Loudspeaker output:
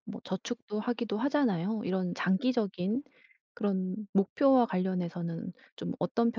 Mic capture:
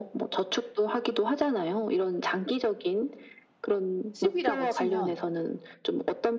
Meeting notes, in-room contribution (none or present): present